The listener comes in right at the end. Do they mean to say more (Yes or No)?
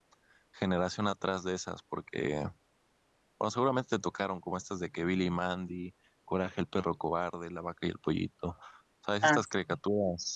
No